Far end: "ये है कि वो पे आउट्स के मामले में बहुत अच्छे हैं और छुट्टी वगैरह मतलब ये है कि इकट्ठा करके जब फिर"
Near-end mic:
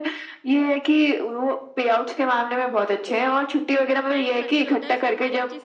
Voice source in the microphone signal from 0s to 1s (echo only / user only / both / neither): echo only